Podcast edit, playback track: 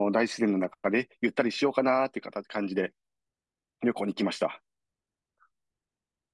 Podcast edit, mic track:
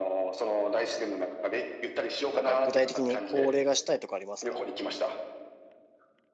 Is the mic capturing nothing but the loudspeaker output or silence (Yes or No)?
No